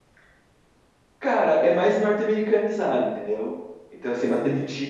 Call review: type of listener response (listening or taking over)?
listening